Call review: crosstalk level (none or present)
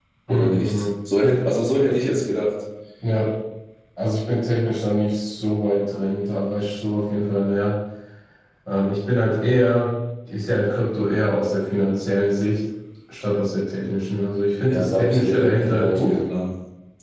present